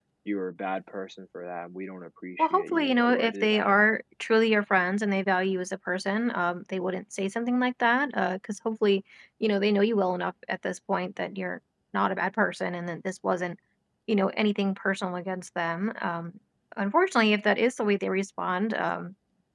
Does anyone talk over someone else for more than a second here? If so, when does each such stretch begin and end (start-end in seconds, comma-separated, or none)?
2.4-3.7